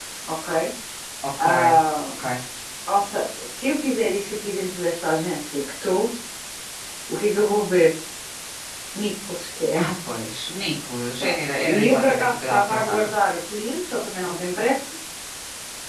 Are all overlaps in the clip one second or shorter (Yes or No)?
No